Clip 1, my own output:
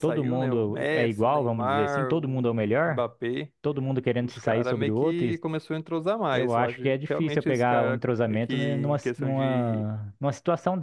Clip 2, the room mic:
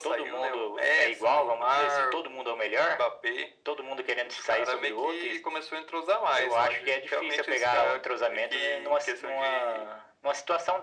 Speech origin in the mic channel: echo only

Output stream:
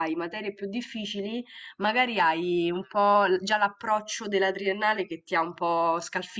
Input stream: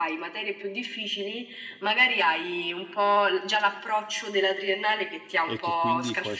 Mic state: both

